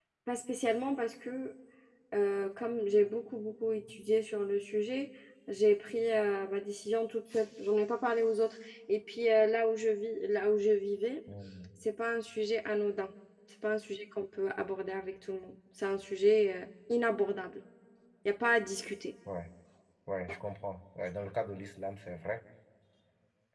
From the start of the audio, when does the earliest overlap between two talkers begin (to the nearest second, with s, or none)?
none